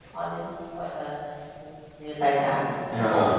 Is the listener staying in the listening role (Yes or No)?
No